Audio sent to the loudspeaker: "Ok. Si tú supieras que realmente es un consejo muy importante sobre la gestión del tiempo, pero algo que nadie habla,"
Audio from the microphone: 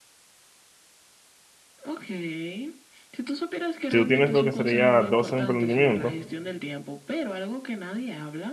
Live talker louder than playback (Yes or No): Yes